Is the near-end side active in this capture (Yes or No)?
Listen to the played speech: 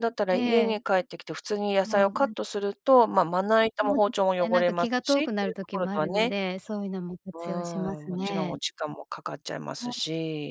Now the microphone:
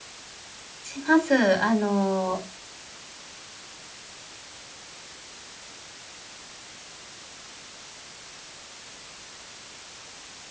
Yes